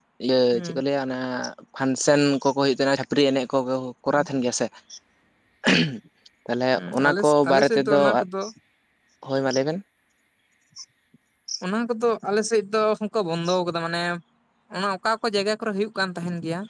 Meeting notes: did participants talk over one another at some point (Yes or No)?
Yes